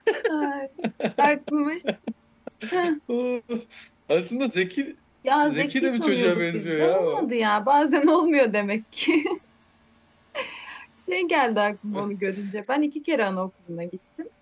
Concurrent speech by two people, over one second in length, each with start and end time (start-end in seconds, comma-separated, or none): 5.4-7.3